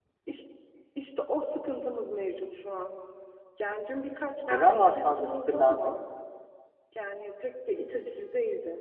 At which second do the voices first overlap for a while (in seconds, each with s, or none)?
4.4 s